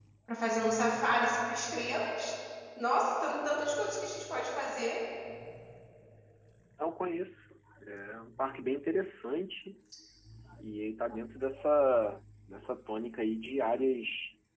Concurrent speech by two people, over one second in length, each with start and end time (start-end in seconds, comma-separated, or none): none